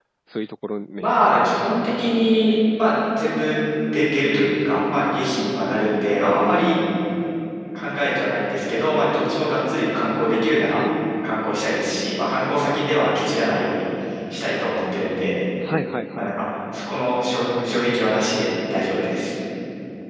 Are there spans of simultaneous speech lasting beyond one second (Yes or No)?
No